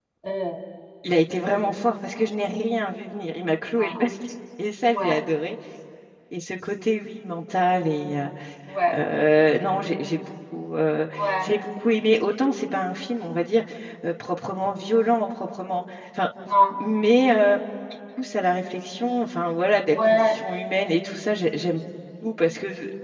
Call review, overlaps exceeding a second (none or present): none